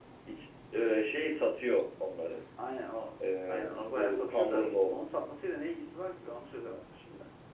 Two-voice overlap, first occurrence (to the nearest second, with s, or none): 3 s